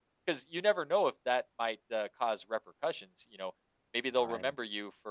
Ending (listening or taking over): listening